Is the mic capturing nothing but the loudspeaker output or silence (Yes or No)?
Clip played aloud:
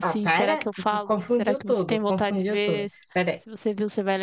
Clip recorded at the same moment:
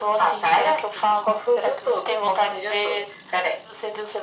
Yes